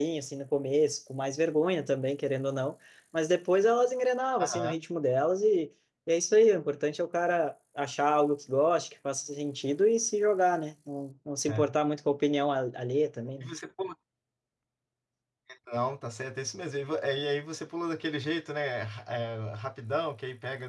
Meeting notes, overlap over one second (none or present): none